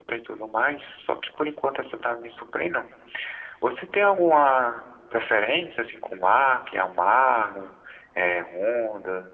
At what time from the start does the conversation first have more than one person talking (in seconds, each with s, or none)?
none